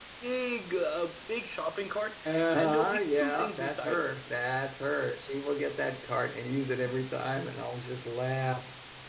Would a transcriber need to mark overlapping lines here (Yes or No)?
Yes